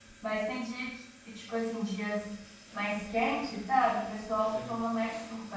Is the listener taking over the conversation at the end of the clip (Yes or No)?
No